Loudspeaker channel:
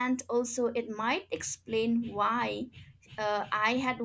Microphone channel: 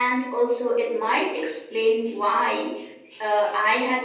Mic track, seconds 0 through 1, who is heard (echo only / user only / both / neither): echo only